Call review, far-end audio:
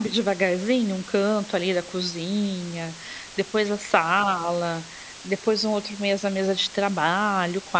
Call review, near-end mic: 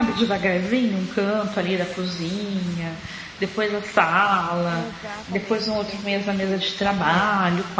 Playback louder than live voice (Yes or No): Yes